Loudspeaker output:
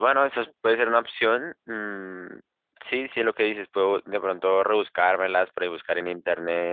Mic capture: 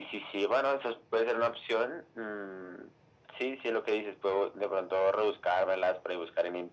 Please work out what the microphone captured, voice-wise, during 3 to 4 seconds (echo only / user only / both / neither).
echo only